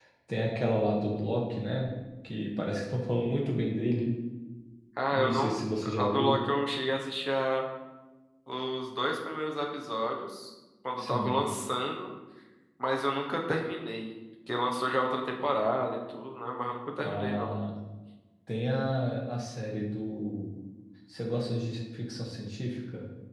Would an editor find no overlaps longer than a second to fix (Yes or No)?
Yes